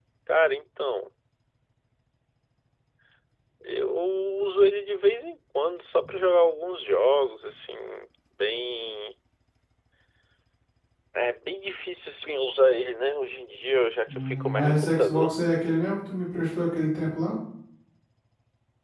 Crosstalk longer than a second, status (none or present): present